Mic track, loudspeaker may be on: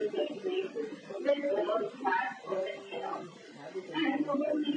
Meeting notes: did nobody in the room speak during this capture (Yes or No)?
No